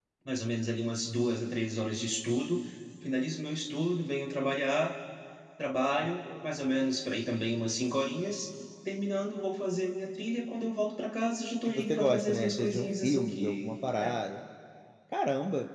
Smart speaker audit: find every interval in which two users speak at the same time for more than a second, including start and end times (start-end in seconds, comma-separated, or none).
11.7-14.2